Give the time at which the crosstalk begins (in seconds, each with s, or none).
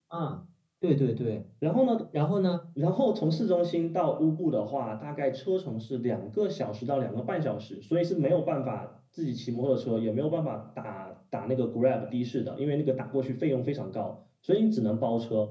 none